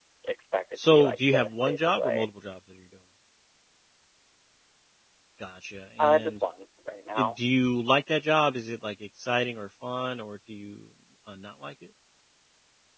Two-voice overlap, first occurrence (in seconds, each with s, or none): 0.9 s